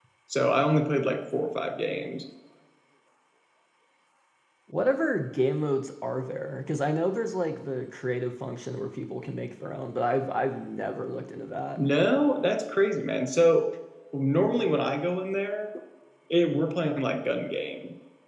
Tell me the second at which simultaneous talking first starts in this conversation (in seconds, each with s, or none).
none